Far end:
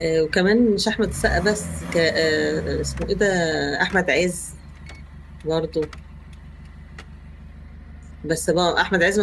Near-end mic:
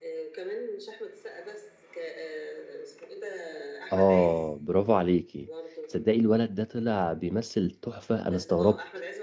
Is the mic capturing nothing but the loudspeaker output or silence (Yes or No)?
No